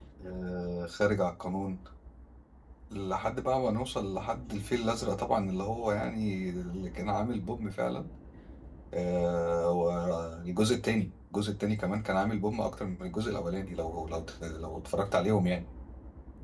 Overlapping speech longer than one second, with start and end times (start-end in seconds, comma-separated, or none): none